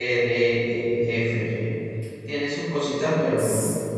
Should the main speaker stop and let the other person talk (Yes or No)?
Yes